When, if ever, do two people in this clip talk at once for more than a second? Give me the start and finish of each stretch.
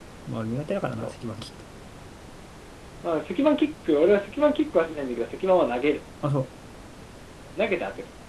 none

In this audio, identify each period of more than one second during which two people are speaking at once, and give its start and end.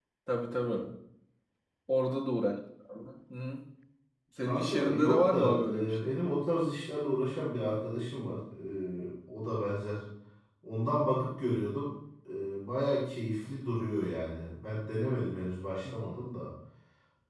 4.4-6.2

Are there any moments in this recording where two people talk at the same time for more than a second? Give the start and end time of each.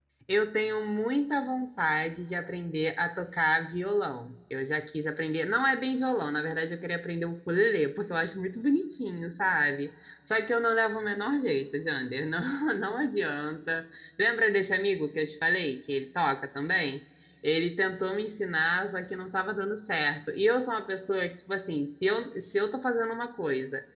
none

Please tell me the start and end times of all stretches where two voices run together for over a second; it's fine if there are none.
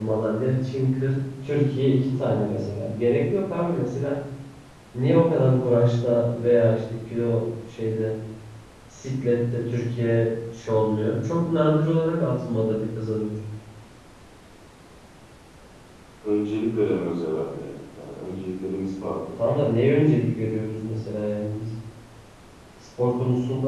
none

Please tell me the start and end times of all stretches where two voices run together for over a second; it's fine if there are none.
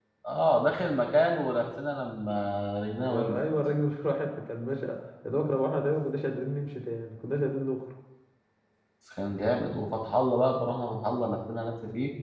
none

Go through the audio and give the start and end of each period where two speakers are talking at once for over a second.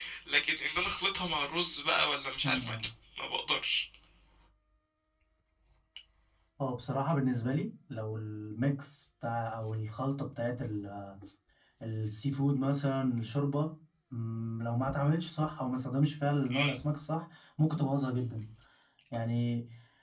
none

